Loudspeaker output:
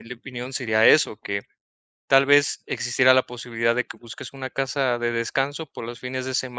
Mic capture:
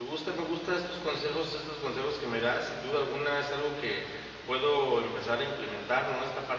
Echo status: none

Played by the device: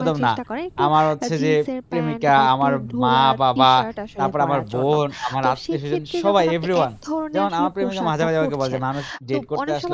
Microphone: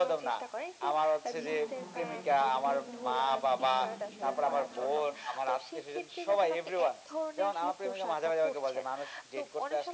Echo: present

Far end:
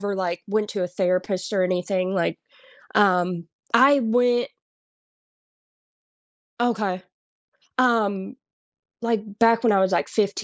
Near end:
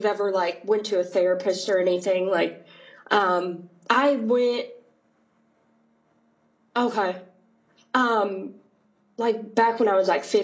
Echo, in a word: present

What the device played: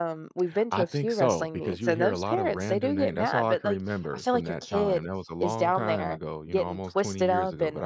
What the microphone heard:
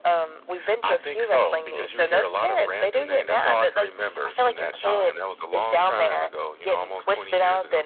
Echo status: present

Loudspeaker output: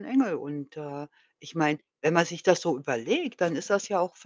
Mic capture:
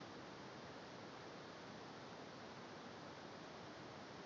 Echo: none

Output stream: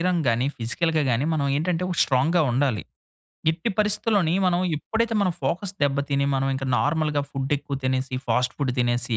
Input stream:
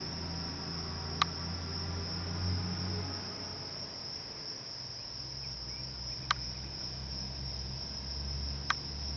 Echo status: none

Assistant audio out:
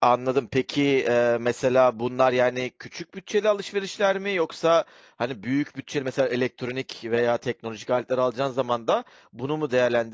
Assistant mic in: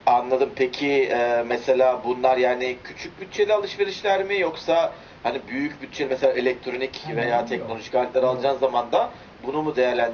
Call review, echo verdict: present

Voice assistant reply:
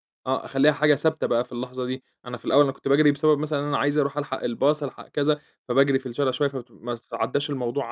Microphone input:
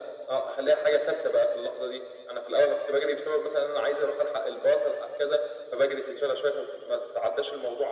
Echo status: present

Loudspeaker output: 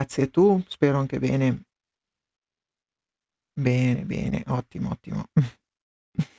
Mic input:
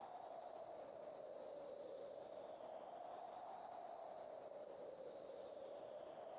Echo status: none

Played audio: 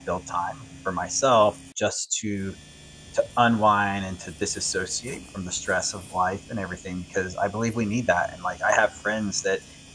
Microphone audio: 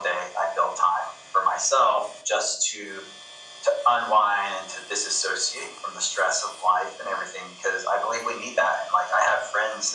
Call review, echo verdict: present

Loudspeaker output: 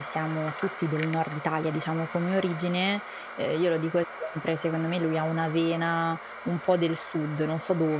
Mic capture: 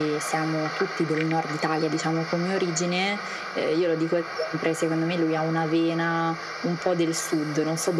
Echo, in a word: present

